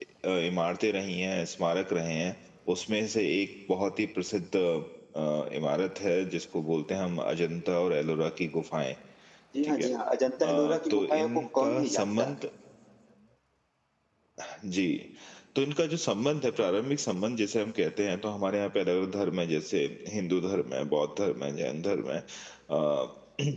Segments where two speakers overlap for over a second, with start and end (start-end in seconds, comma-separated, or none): 10.4-12.3